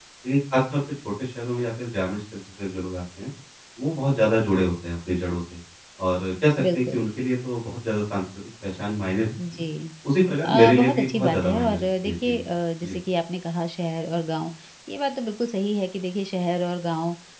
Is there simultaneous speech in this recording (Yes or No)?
Yes